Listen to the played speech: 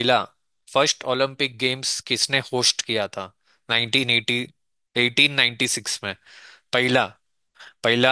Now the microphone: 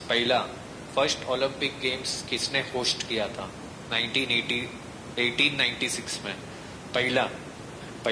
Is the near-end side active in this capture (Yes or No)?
No